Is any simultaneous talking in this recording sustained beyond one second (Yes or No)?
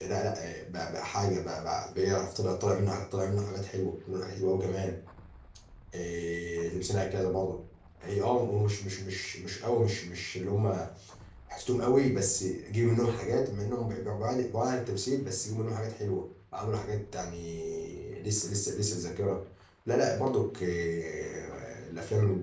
No